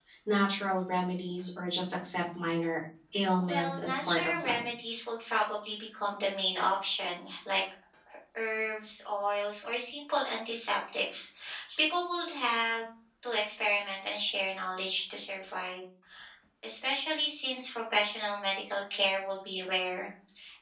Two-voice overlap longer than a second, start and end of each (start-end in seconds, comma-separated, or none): 3.4-4.6